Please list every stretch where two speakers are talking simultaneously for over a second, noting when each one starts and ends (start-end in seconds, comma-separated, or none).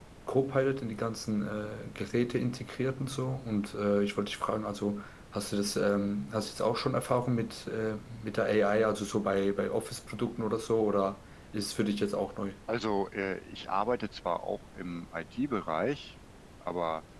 none